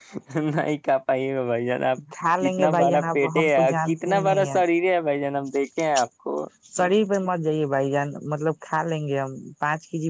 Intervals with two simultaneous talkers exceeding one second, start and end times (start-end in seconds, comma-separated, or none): 2.2-4.5